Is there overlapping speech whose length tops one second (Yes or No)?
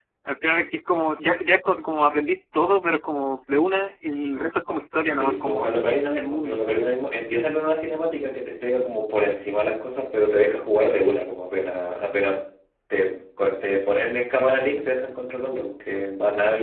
Yes